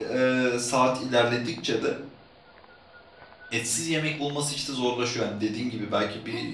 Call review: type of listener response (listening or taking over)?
taking over